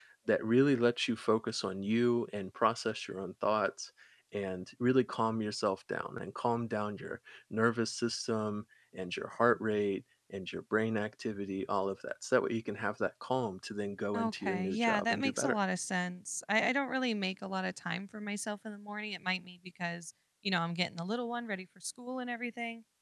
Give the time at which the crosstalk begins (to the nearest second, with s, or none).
14 s